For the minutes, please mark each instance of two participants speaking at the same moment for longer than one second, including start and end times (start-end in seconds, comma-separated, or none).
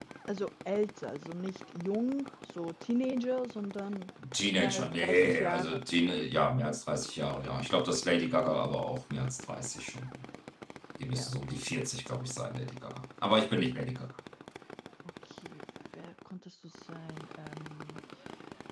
4.5-5.8